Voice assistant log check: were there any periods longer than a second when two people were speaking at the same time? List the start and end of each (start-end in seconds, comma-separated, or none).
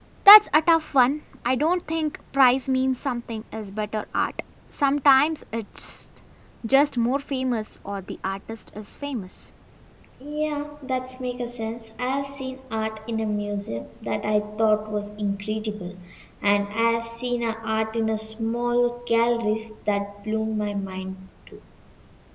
none